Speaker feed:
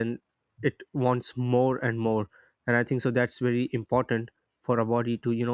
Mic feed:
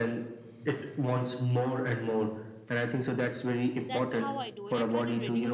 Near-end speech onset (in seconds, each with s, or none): 3.9 s